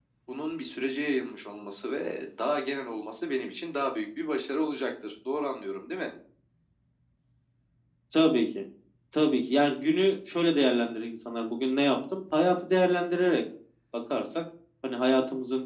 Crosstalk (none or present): none